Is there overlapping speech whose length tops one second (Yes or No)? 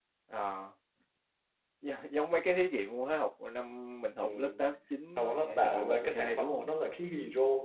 Yes